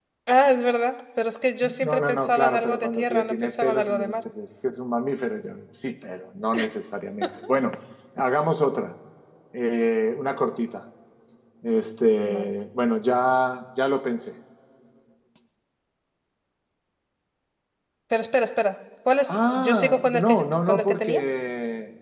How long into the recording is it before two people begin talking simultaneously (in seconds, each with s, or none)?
1.6 s